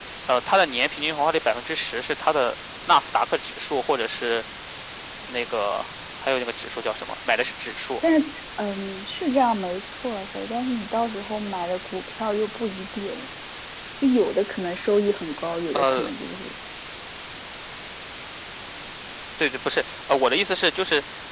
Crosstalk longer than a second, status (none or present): none